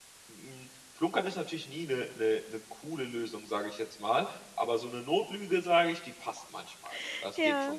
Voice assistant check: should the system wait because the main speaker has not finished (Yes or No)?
No